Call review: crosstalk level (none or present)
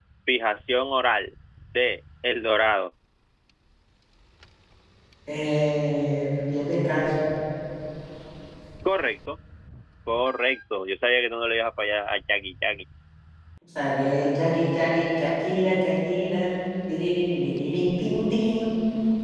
none